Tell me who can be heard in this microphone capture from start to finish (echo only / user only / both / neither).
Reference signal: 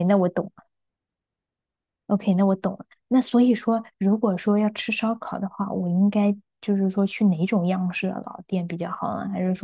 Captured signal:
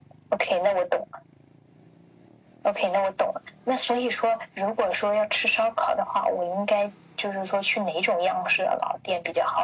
echo only